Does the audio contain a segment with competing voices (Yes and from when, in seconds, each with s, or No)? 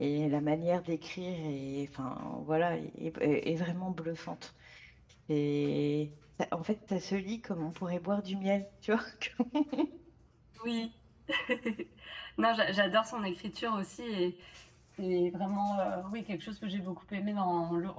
No